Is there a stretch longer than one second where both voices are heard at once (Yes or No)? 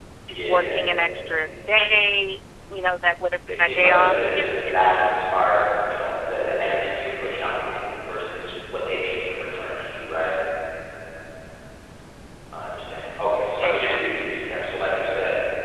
Yes